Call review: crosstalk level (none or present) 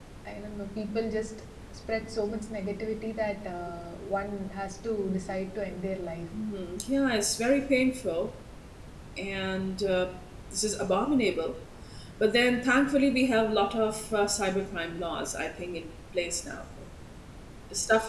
none